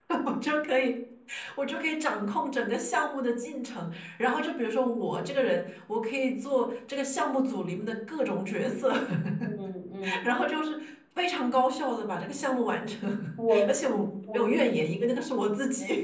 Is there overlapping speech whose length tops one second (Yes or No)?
No